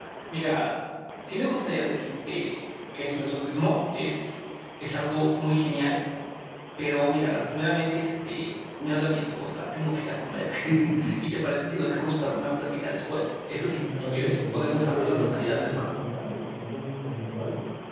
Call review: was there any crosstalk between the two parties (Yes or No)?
Yes